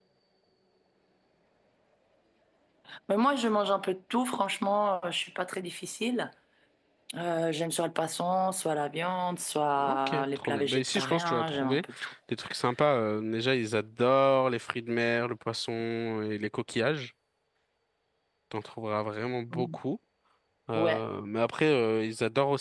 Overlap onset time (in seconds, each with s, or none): 9.8 s